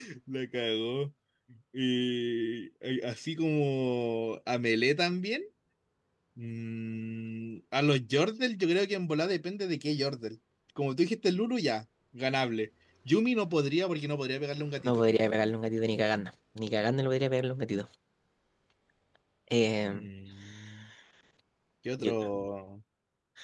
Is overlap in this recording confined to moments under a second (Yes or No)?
Yes